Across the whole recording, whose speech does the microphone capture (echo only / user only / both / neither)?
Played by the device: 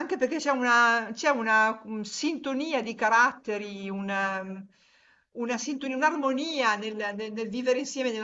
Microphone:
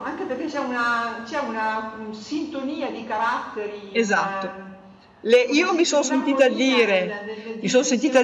both